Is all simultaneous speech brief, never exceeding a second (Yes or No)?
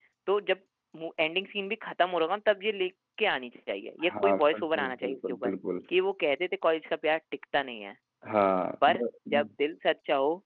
No